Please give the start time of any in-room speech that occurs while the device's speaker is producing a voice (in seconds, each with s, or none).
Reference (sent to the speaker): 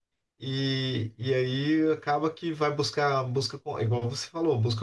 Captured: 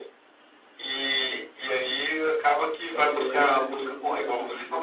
2.9 s